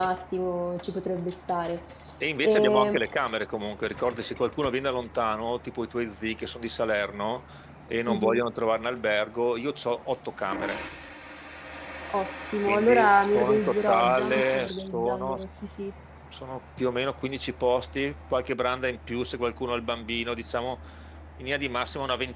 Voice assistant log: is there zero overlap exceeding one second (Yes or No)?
No